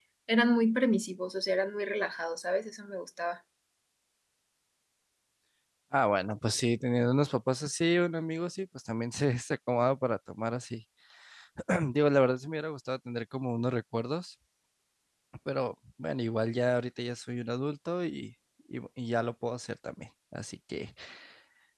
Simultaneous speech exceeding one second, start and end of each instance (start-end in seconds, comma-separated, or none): none